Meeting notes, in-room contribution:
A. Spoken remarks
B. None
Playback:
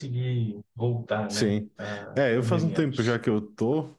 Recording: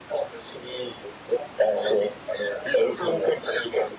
B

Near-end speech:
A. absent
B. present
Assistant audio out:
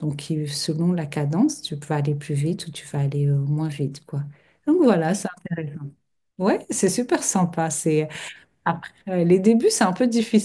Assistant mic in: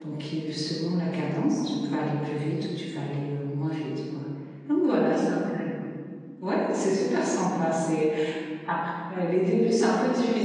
A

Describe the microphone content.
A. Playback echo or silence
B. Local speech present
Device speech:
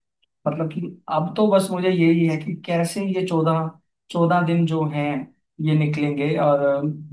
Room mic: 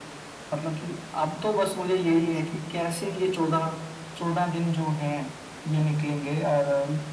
A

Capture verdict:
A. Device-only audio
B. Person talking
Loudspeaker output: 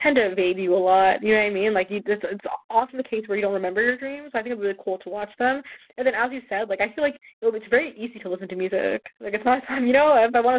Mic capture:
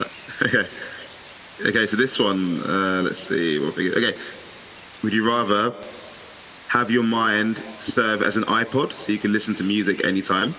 B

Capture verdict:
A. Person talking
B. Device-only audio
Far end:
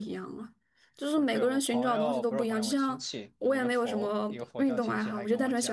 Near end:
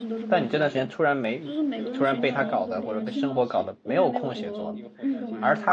A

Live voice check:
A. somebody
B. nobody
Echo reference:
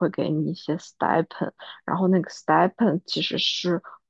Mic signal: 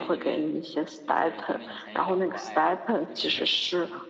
A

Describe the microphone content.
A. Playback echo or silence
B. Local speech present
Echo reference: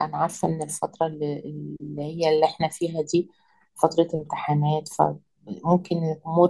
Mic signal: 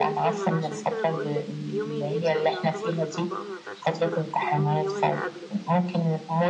B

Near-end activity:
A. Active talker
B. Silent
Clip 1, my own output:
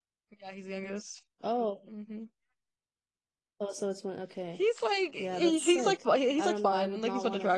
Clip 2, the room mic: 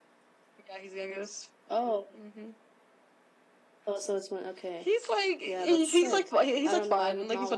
B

